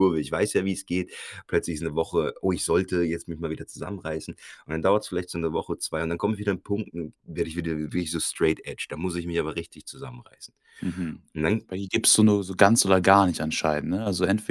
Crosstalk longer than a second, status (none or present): none